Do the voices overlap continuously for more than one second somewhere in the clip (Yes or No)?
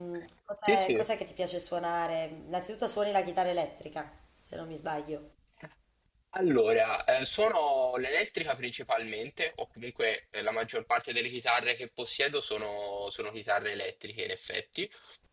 No